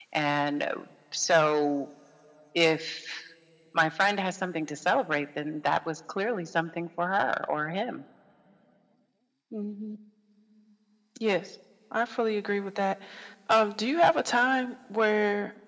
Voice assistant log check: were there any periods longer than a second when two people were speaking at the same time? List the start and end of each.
none

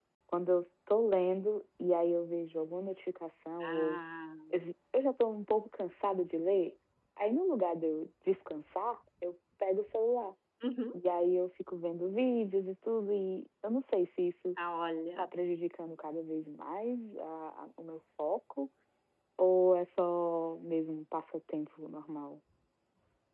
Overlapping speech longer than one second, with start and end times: none

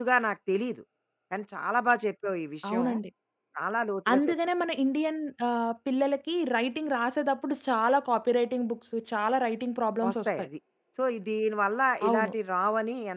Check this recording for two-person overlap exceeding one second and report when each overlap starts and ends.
none

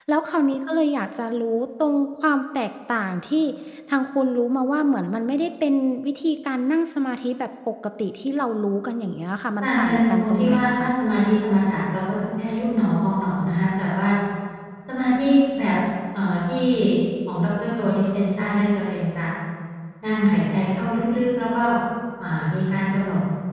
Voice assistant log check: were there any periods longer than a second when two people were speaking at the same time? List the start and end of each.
9.6-10.9

